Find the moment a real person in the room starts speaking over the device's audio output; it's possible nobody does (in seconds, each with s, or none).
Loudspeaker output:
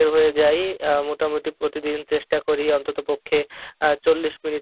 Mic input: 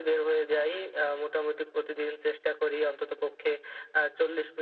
none